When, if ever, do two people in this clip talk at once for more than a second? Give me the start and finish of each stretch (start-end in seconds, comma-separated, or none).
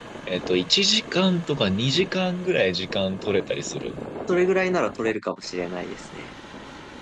none